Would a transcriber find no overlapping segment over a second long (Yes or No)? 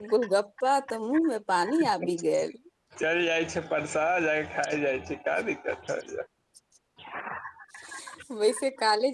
Yes